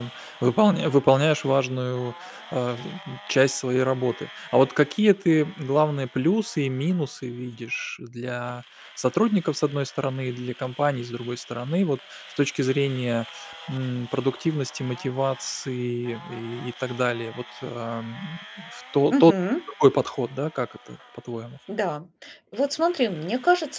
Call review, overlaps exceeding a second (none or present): none